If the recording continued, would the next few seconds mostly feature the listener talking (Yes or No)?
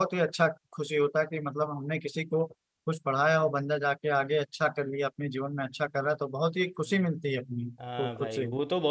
Yes